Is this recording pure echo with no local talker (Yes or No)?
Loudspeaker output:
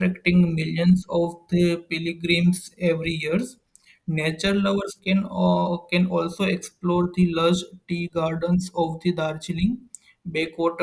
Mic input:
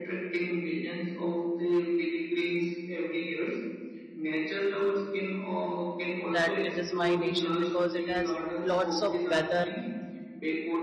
No